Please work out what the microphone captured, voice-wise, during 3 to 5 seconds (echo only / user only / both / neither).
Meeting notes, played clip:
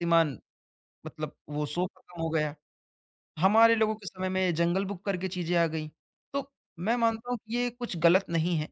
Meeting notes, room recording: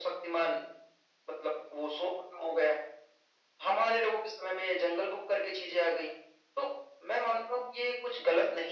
echo only